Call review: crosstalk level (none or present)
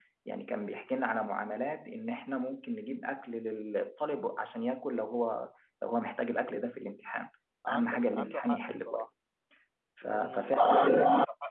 present